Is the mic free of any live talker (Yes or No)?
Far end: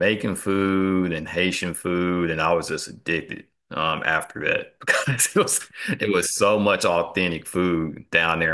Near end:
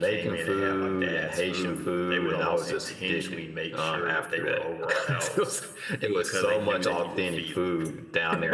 No